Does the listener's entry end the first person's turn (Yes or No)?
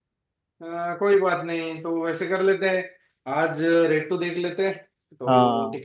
No